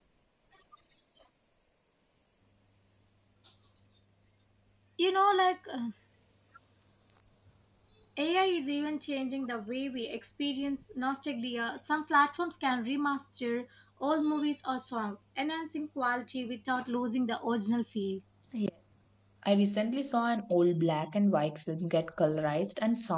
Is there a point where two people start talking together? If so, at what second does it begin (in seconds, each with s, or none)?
none